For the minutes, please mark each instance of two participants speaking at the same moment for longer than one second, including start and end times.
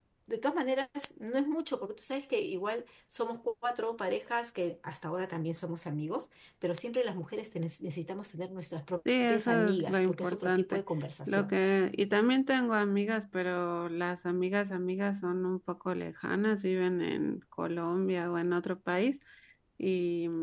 9.2-10.8

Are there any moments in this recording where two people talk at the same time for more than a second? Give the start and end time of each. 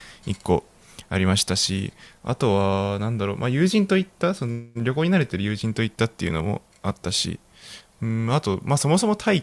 none

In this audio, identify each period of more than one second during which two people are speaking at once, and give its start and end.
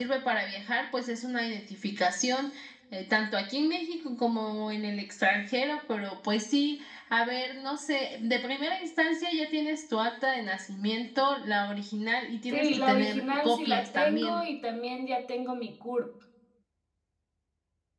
12.5-14.4

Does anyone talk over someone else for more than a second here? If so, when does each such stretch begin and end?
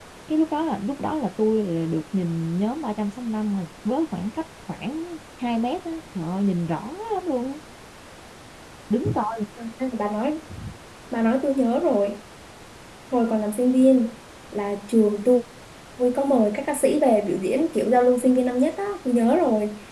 none

